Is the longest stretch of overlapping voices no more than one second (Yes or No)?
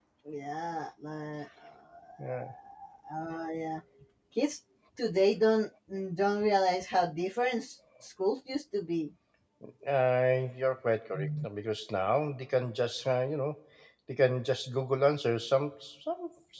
Yes